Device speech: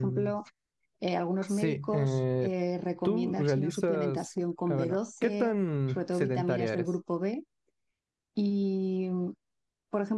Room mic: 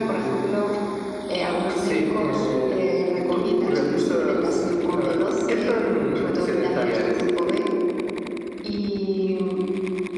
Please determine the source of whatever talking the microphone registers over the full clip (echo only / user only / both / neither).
echo only